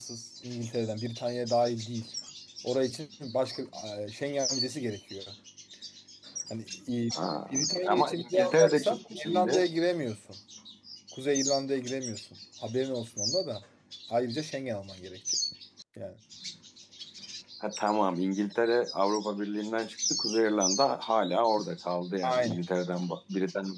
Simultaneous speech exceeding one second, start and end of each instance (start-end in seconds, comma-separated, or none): 7.5-9.6